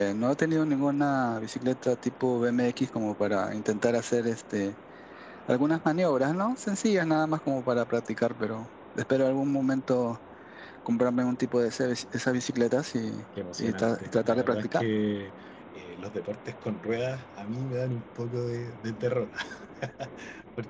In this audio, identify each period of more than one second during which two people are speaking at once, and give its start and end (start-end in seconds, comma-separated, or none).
13.6-14.9